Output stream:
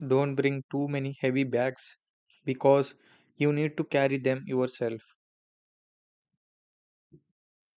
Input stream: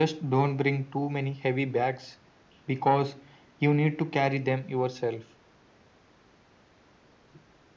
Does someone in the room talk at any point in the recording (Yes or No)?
No